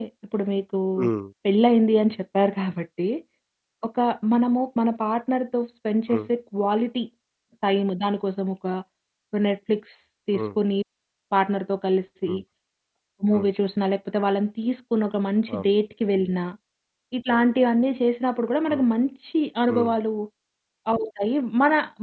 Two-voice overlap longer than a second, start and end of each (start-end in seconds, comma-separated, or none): none